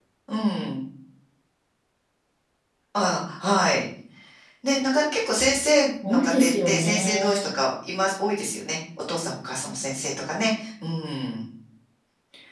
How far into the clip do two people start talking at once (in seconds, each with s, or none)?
6.0 s